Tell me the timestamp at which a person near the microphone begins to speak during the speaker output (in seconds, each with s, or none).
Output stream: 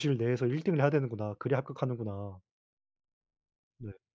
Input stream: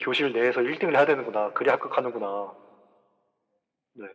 none